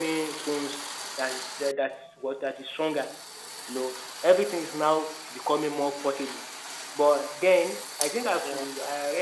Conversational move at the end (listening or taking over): listening